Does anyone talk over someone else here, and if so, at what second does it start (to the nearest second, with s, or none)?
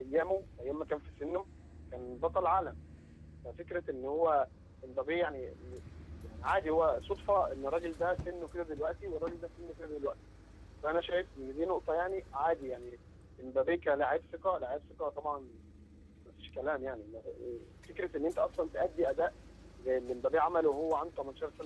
none